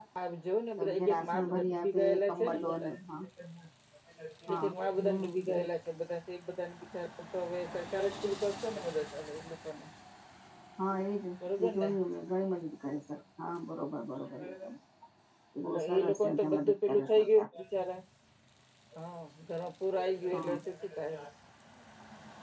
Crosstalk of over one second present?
Yes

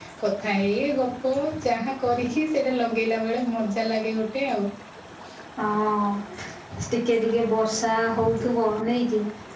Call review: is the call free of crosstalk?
Yes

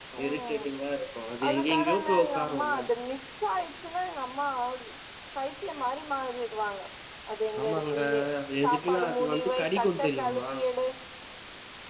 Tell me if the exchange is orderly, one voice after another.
No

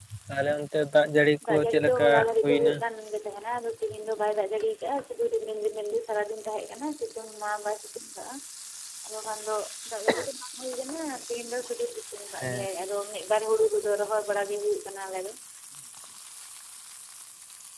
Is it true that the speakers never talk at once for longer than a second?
No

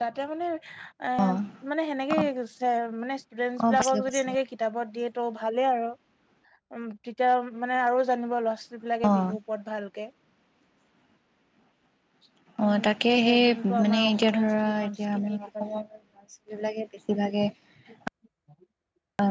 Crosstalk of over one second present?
Yes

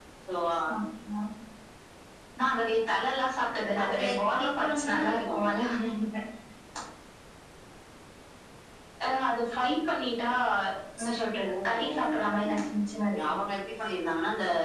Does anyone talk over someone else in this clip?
Yes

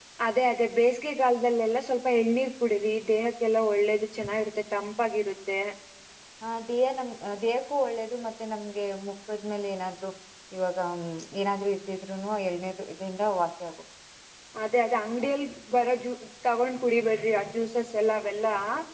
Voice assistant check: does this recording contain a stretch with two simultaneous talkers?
No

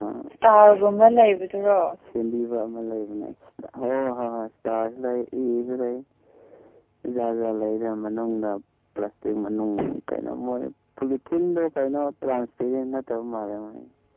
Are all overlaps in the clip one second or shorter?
Yes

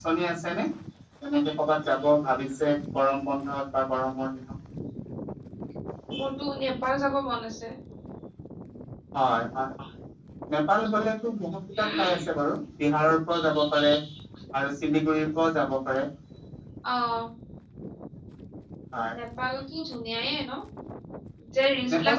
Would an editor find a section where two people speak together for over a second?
No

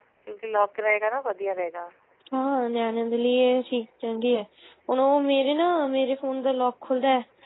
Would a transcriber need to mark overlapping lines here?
No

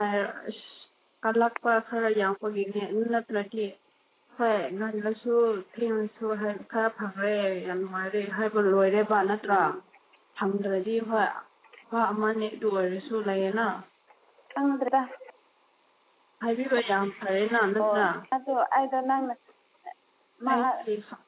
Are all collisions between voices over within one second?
Yes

